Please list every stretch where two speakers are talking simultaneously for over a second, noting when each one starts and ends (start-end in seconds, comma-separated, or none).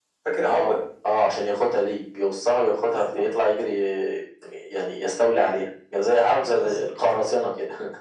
none